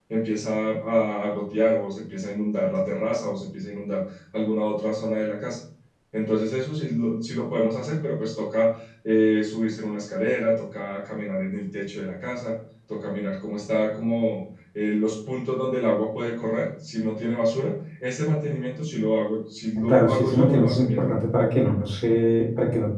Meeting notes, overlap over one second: present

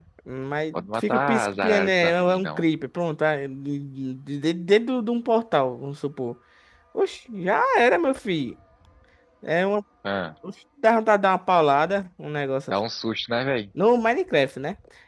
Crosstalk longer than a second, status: present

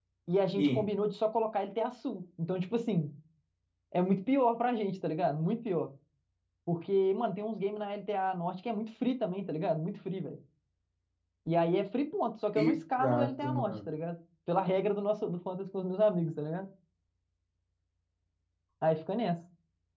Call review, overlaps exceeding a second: present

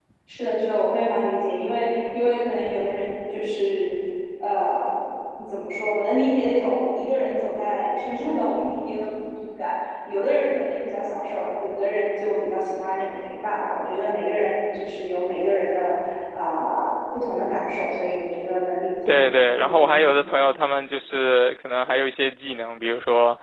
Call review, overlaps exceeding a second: none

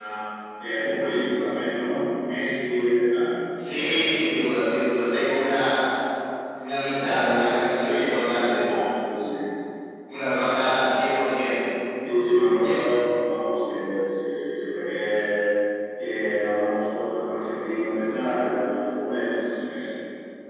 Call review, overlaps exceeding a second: present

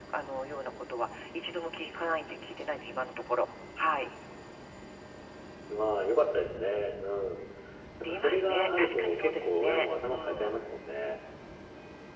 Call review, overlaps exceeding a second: present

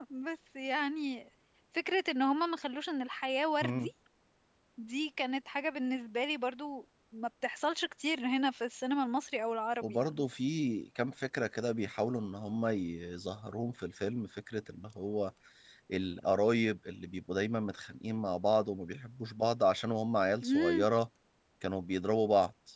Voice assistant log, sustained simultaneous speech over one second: none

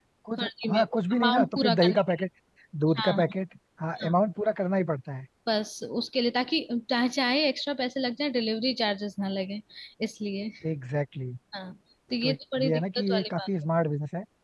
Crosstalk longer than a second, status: present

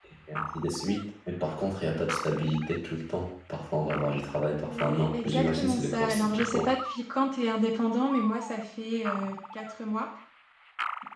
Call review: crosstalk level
present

